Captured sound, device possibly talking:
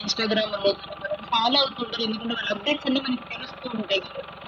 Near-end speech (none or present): none